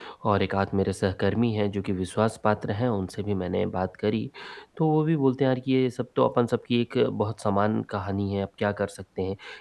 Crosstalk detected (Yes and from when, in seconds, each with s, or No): No